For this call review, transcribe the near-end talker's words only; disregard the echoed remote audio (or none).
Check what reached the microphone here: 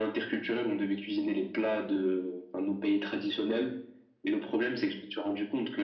none